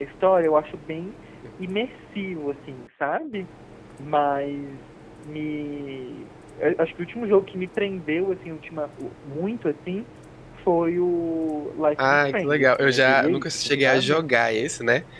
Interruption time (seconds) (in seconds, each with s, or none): 12.0 s